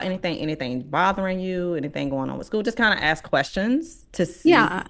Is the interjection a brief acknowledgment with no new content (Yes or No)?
Yes